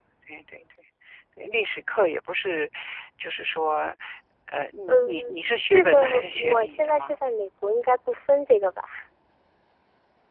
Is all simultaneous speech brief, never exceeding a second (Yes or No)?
No